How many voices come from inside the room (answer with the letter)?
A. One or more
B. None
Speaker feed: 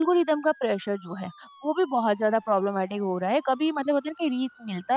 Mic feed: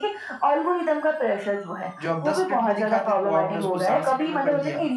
A